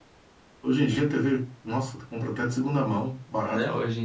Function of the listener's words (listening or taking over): taking over